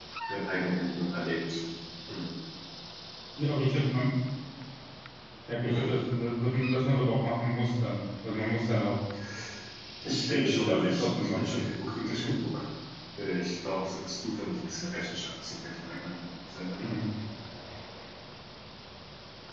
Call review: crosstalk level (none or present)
present